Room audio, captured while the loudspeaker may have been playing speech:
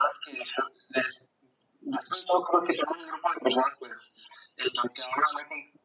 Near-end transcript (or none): none